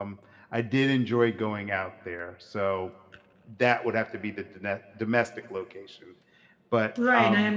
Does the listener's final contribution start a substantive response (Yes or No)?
Yes